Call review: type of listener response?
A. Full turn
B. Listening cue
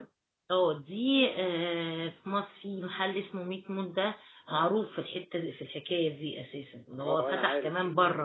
A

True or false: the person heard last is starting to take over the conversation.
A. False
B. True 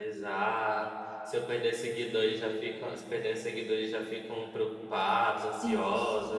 B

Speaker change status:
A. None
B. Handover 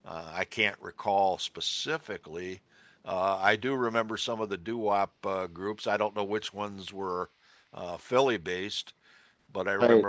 A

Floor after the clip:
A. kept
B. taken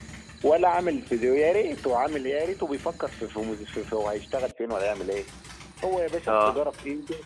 A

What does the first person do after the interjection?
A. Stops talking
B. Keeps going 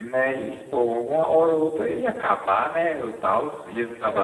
A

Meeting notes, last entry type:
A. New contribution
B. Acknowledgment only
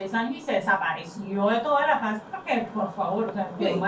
B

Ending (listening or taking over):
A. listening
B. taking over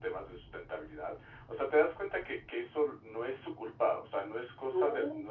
A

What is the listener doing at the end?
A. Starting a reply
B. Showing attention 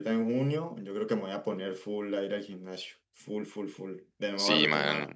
A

